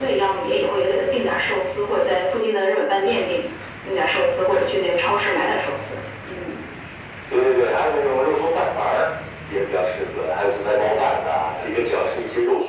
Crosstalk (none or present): none